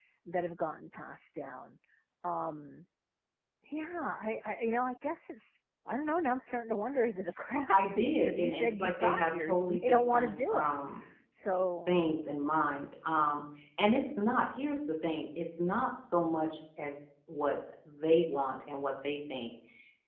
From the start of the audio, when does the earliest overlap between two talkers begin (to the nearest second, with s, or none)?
8 s